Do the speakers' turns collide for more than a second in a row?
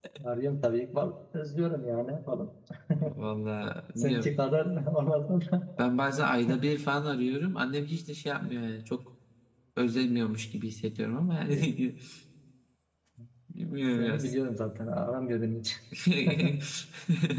No

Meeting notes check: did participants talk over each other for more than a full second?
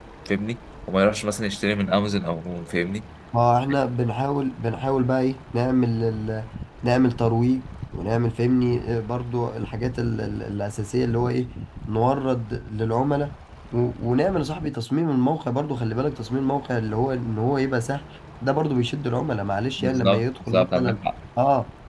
Yes, from 19.8 s

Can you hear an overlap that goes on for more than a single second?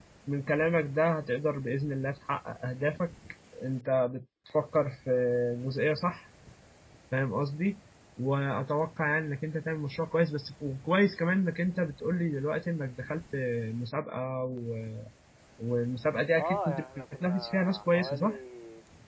Yes, from 16.4 s

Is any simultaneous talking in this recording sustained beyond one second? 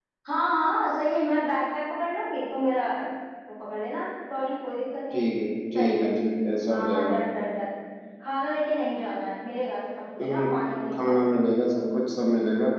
No

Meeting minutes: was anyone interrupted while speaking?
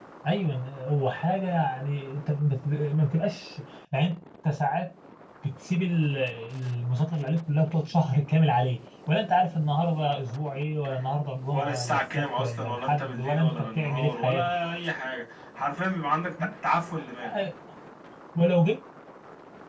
Yes, from 11.5 s

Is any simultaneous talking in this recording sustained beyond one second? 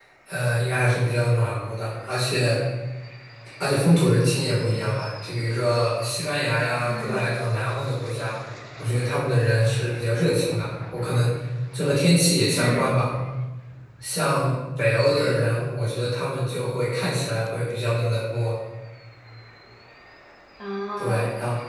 No

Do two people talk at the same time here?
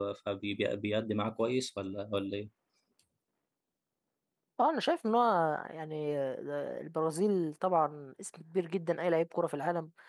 No

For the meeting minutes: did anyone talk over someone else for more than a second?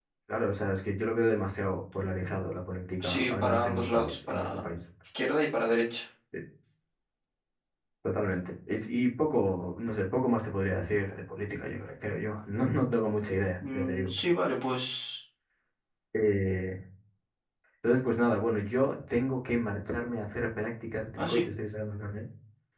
Yes, from 3.0 s

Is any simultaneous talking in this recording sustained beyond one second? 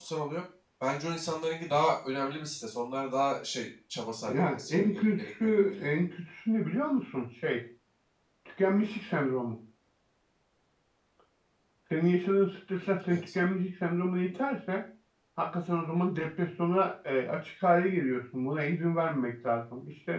Yes, from 4.3 s

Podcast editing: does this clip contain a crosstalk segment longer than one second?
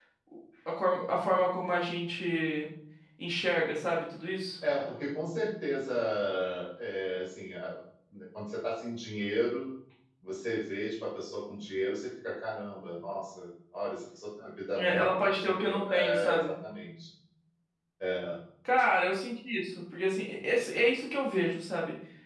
Yes, from 14.8 s

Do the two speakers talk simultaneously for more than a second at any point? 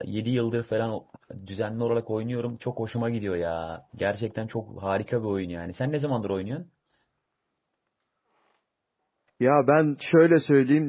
No

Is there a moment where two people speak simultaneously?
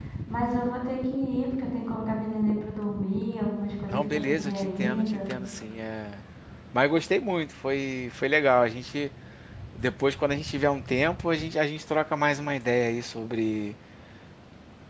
Yes, from 3.9 s

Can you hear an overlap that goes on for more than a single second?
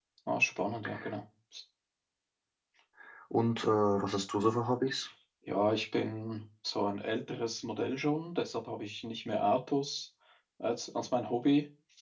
No

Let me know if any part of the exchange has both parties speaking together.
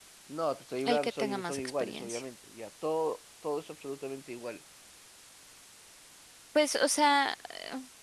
Yes, from 0.8 s

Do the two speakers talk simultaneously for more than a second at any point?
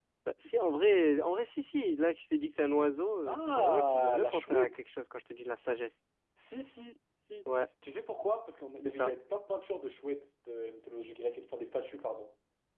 Yes, from 3.3 s

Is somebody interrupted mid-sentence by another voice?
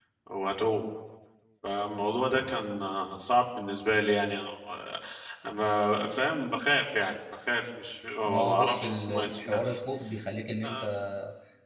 Yes, from 8.2 s

